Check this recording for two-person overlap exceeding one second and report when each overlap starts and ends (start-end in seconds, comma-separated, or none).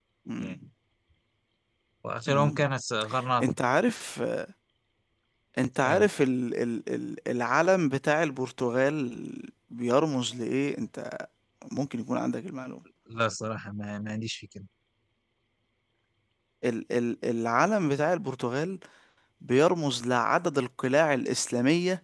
none